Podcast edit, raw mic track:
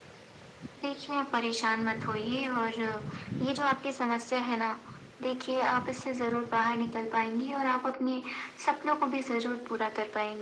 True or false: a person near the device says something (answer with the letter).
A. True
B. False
B